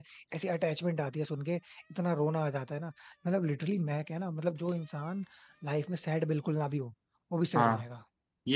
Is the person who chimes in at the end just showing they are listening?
No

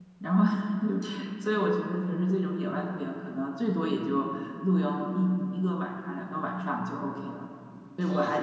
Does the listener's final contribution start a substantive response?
No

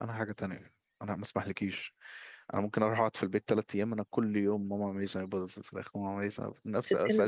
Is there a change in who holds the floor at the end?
No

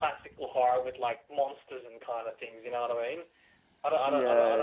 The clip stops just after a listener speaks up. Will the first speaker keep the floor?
Yes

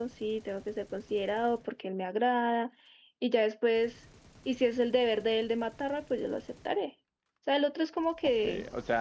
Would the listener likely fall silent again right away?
No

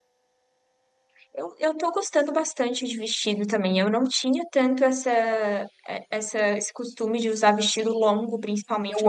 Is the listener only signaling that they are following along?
Yes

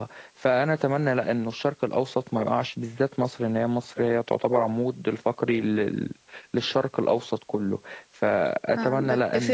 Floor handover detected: Yes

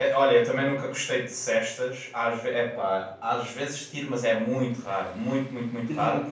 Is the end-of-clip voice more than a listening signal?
Yes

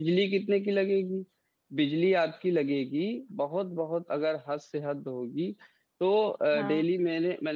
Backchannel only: Yes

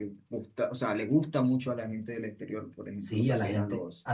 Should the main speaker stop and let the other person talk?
Yes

